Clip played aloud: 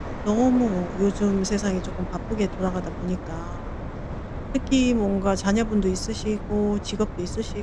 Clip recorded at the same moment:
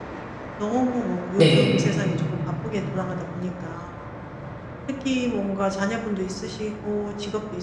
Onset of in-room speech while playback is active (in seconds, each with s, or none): 1.4 s